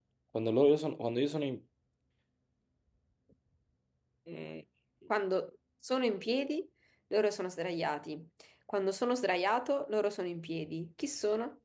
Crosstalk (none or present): none